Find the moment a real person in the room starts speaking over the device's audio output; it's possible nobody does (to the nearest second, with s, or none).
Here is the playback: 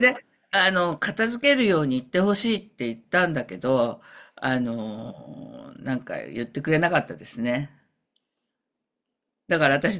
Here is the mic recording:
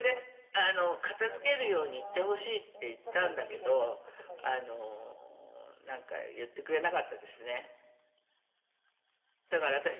1 s